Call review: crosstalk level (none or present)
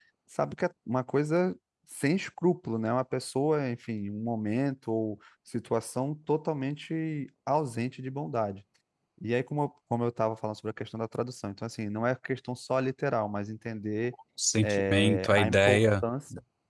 present